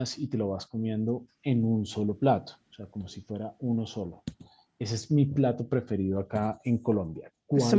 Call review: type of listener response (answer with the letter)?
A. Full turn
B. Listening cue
A